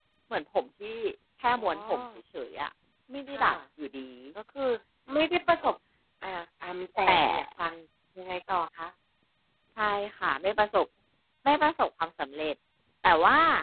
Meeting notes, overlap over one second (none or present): none